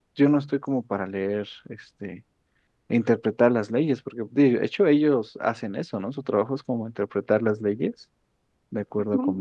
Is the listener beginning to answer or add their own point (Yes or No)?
Yes